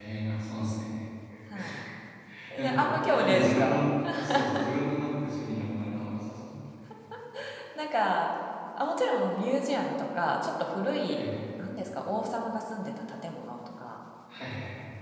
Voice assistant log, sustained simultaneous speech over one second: present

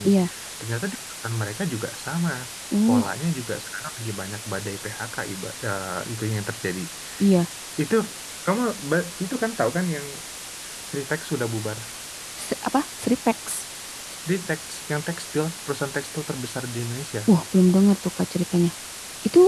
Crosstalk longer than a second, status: none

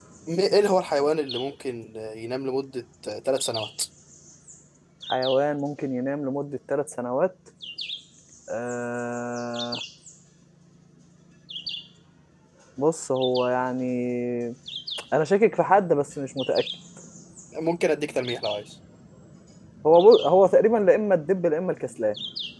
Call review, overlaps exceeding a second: none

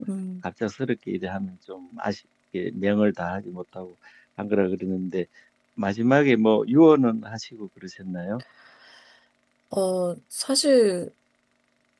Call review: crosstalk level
none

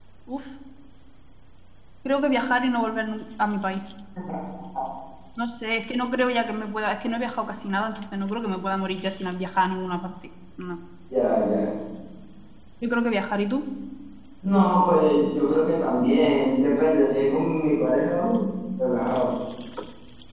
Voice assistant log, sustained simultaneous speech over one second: none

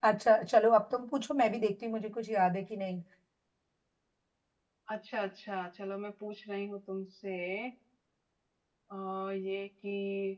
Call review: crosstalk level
none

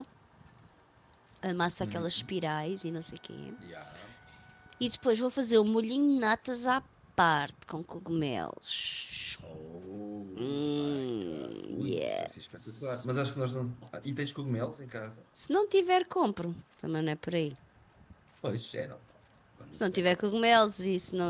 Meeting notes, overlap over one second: present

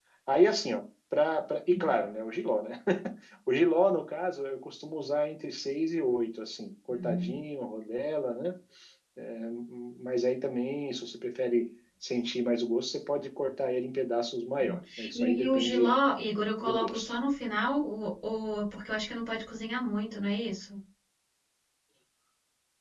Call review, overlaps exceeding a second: present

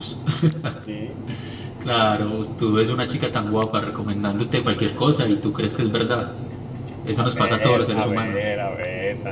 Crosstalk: present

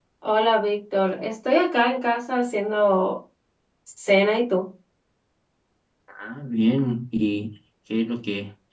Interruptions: none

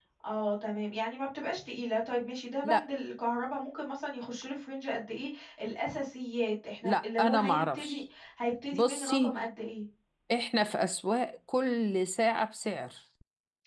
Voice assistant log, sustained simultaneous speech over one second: present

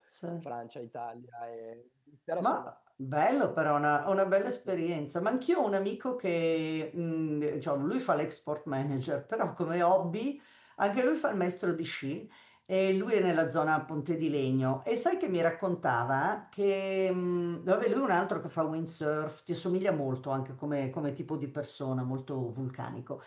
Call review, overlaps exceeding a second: none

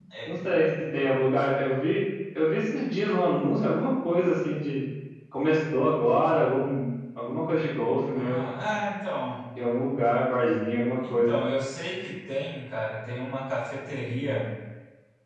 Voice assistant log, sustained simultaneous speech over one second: none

